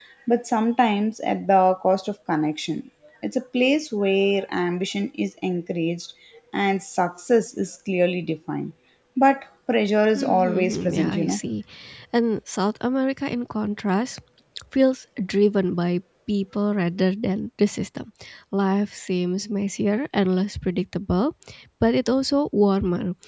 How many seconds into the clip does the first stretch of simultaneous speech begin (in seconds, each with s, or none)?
10.2 s